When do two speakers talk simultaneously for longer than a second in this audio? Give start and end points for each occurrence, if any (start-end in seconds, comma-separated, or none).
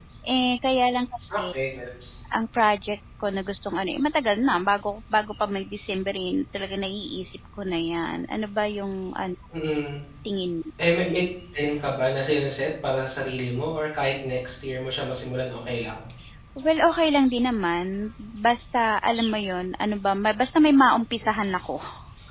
none